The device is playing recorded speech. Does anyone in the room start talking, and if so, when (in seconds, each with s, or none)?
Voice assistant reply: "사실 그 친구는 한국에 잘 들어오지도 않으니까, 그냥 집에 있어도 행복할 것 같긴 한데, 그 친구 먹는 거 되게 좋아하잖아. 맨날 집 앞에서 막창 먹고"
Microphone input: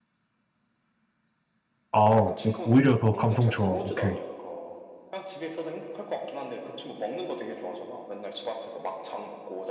1.9 s